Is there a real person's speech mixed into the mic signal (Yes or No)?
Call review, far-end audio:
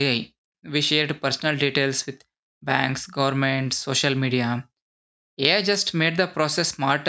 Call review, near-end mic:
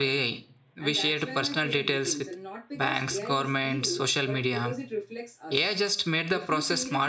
Yes